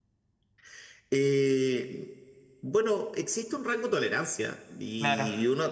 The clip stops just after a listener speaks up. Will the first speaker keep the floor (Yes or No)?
Yes